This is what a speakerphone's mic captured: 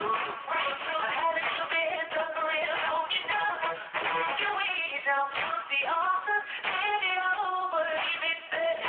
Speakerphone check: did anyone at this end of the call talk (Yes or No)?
No